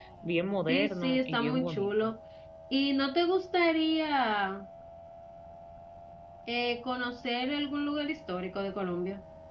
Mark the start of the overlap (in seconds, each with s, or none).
0.7 s